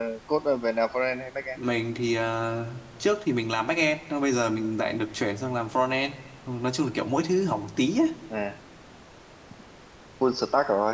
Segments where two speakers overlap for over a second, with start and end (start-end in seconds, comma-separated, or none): none